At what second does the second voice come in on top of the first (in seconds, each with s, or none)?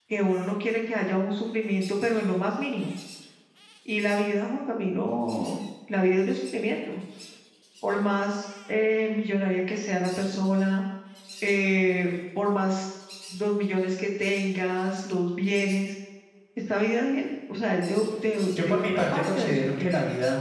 18.6 s